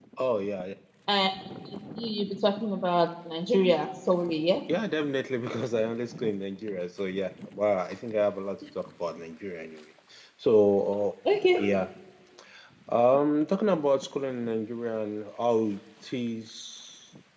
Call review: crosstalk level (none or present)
none